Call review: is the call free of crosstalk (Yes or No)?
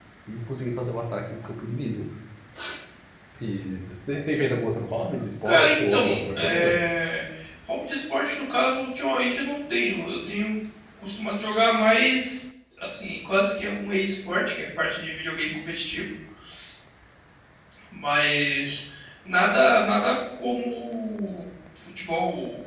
No